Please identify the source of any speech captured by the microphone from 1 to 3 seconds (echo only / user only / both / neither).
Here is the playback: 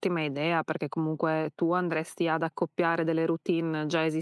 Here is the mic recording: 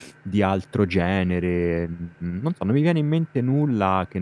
user only